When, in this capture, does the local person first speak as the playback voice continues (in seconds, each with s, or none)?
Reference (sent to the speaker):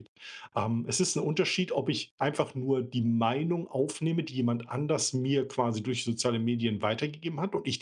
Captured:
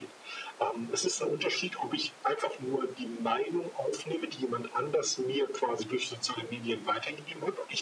none